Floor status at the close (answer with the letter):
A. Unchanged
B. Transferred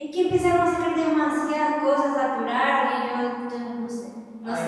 B